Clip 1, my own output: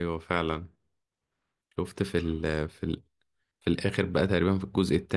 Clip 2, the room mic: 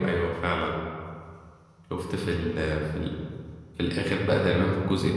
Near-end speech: none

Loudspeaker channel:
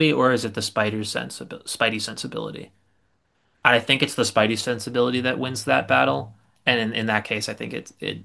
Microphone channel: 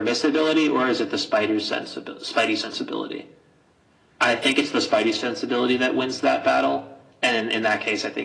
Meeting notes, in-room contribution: none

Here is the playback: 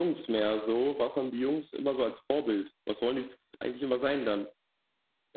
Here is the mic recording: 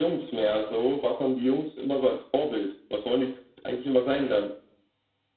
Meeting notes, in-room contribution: none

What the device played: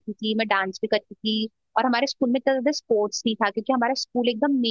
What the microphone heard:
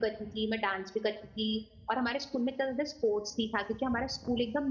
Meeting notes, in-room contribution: none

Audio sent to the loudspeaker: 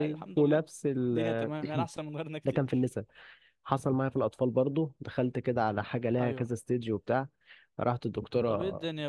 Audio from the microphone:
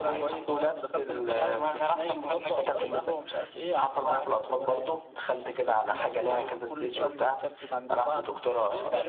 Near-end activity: present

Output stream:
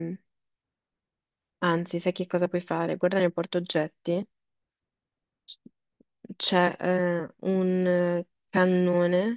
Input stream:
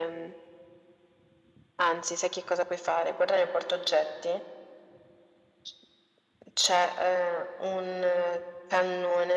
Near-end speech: none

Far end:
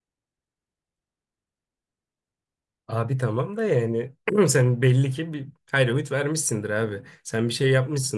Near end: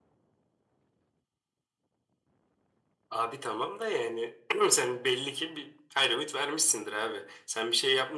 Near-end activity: none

